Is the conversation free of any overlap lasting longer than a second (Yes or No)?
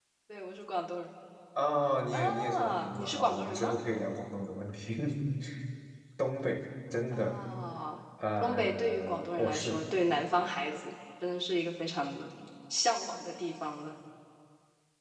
No